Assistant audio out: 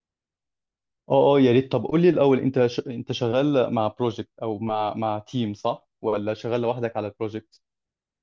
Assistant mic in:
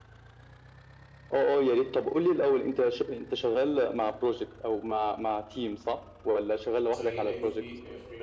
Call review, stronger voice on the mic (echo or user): echo